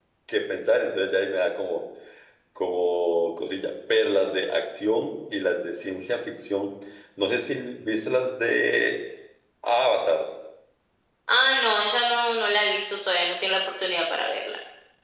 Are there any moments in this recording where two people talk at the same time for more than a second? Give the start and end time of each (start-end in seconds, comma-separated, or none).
none